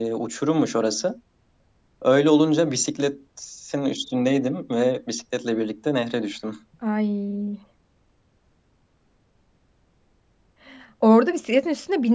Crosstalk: none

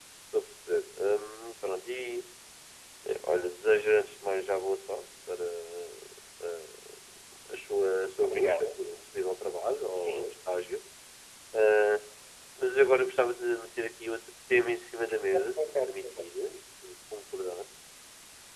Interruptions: present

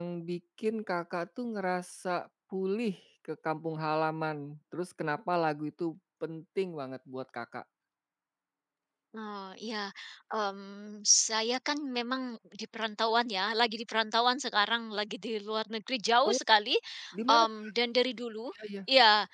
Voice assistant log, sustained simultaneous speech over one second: none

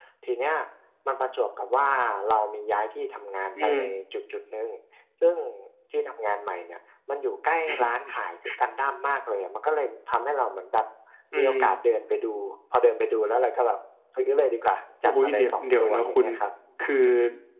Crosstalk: present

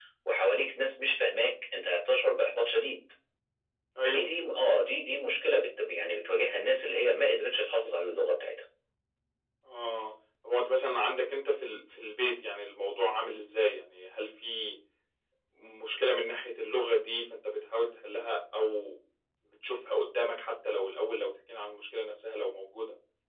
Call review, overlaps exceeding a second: none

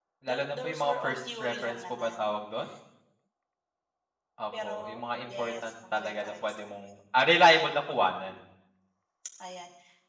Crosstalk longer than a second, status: present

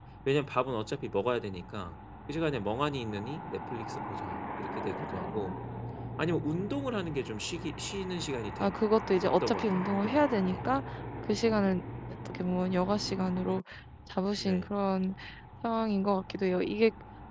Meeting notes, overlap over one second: present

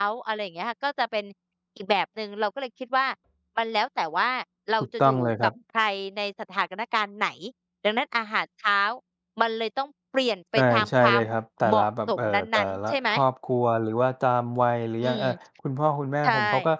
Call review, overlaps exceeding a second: present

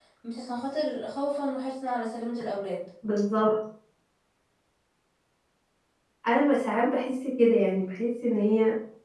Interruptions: none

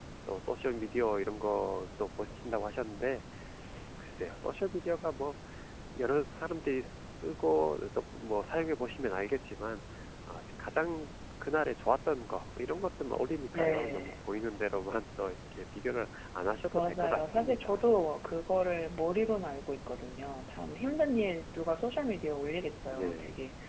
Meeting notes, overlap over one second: present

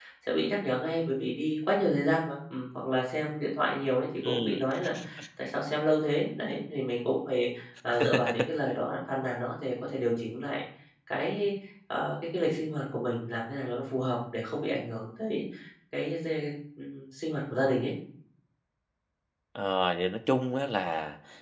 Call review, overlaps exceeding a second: none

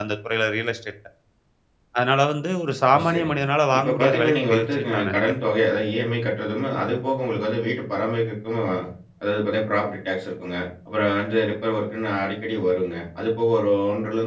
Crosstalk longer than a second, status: present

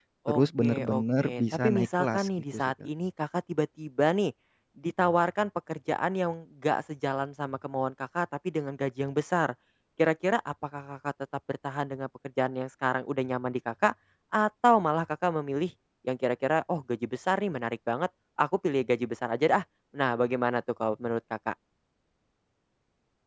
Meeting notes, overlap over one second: present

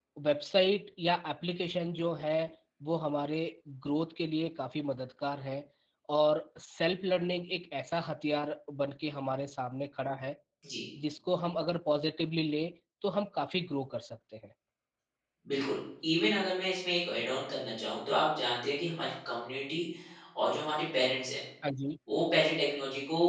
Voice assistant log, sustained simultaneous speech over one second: none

